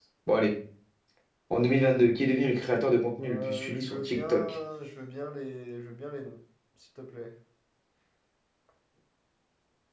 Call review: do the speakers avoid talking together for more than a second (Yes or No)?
No